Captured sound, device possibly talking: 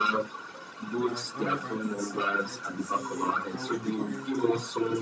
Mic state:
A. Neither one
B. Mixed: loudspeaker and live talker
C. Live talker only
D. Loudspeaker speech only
B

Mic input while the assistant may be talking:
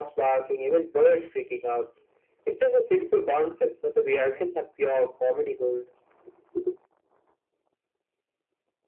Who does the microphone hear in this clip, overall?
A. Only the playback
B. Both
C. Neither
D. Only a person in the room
A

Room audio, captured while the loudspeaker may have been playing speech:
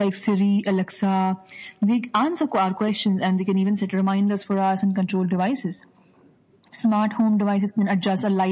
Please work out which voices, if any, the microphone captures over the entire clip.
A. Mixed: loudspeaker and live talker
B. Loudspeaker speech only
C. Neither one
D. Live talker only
B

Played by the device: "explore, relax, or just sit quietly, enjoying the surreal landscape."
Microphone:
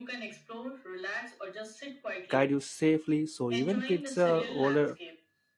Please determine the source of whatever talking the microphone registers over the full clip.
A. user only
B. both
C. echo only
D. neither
B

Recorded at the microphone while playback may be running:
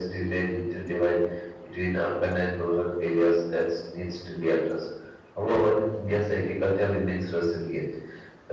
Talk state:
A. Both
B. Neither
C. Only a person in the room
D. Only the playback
D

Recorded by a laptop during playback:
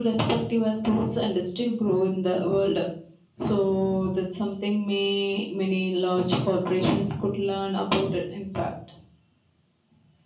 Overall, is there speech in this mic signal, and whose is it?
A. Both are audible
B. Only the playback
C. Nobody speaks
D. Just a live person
B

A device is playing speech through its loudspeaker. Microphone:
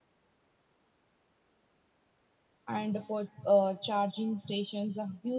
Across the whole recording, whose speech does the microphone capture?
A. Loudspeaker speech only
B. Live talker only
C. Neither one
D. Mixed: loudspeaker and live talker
B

